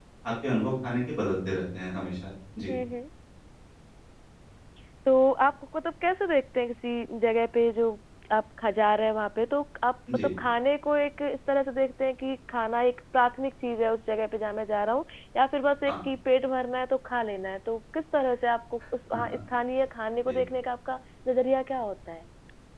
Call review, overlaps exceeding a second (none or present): none